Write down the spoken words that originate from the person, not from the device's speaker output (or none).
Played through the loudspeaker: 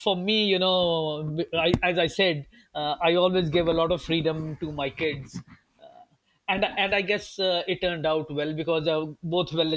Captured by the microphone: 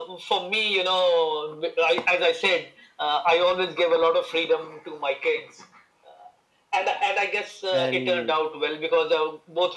and